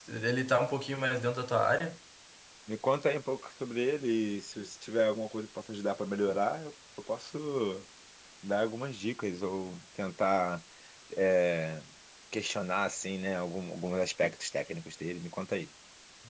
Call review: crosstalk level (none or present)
none